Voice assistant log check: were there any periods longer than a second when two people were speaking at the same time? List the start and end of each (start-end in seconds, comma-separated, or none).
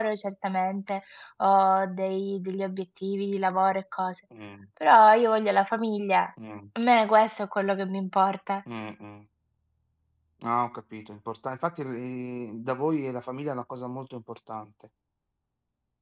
none